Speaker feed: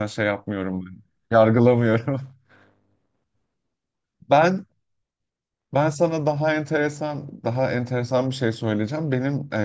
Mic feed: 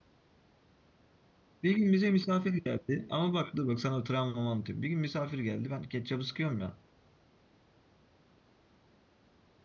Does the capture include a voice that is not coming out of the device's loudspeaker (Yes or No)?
Yes